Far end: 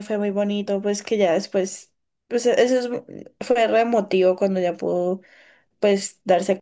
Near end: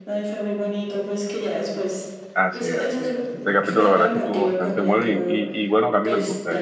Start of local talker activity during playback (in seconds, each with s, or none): 2.3 s